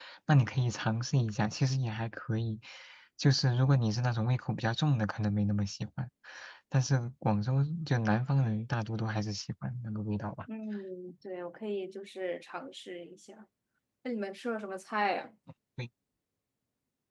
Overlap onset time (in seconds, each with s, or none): none